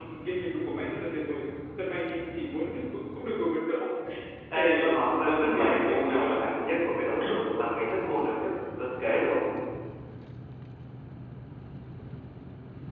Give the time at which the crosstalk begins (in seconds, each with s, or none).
4.6 s